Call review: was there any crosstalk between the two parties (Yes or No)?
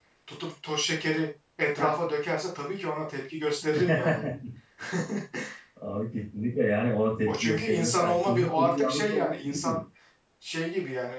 Yes